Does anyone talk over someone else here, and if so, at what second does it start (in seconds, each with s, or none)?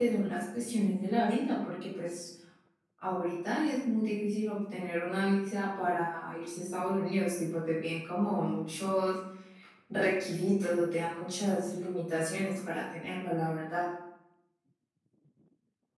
none